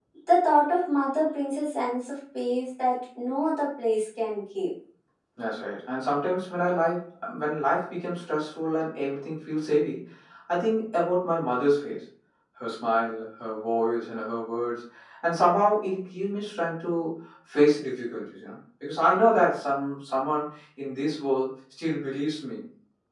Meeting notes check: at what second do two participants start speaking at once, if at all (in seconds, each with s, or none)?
none